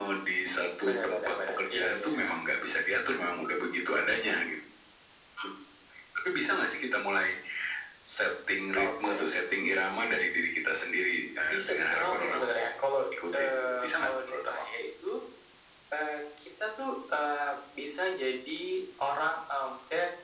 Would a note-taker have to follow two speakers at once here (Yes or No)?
Yes